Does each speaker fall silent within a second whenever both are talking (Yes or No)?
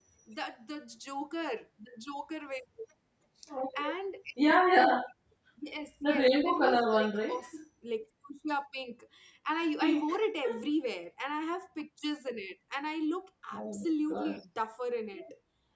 No